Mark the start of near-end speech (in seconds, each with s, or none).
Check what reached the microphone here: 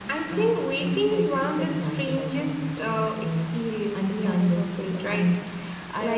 none